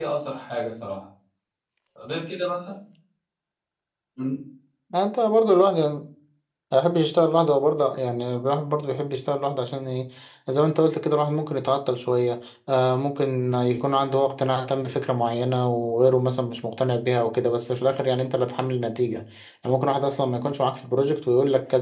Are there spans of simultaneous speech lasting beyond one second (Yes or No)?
No